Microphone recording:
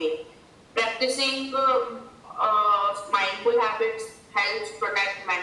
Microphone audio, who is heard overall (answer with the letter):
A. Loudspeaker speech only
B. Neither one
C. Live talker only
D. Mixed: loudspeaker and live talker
A